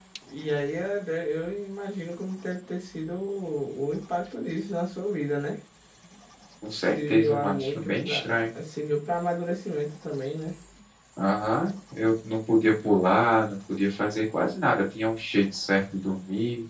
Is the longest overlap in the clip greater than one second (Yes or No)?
Yes